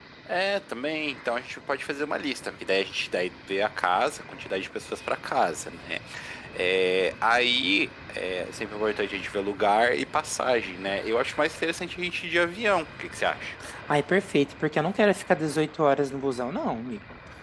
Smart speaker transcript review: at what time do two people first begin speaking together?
none

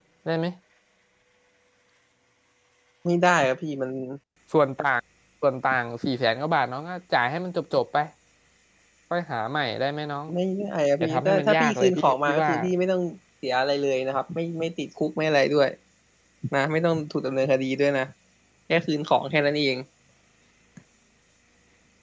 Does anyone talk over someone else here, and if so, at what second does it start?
11.0 s

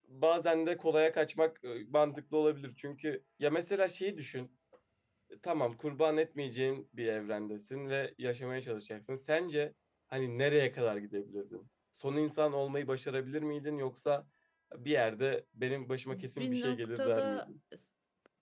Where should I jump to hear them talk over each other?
16.1 s

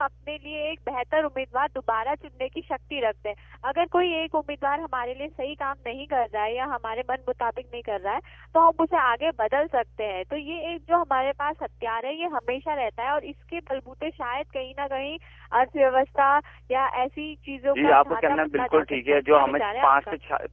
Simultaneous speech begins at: 17.7 s

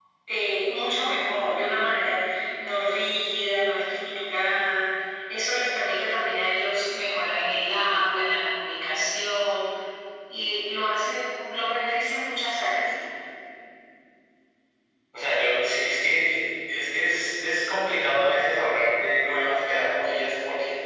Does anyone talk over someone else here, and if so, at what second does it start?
none

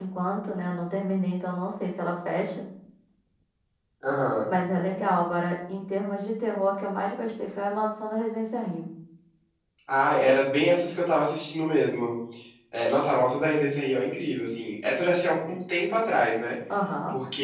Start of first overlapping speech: none

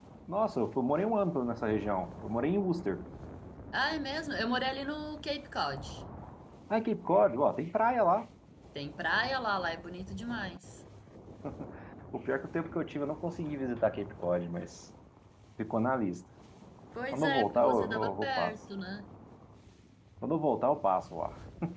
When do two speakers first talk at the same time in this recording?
17.1 s

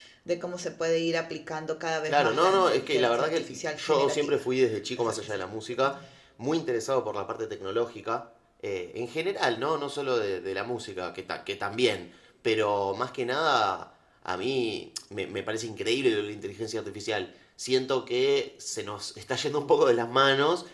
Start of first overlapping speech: 2.1 s

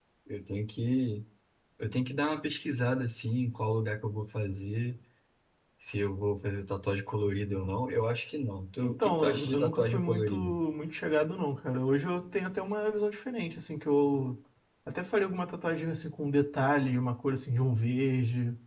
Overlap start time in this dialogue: 8.8 s

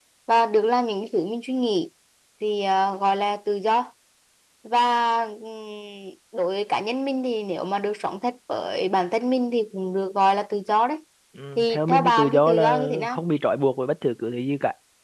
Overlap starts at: 11.6 s

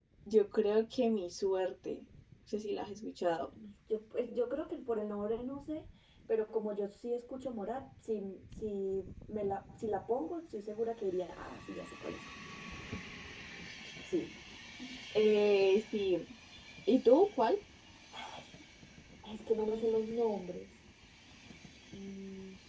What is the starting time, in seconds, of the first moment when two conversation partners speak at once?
none

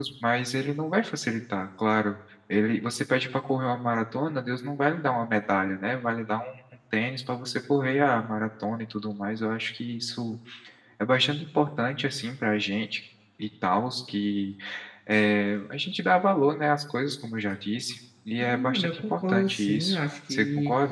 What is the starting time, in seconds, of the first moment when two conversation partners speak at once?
18.4 s

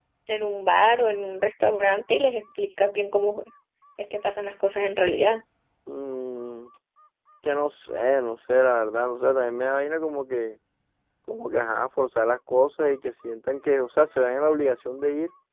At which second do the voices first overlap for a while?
none

